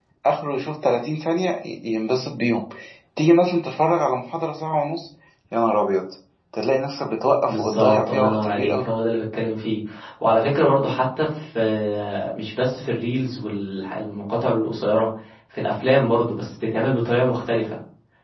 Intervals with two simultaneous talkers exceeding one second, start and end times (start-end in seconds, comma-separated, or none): 7.5-8.8